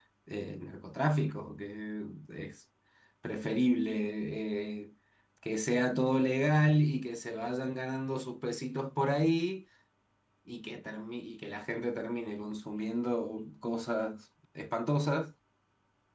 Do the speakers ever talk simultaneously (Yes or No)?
No